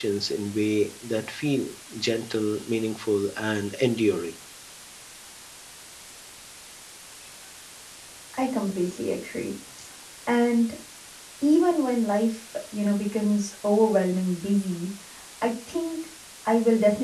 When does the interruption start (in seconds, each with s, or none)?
none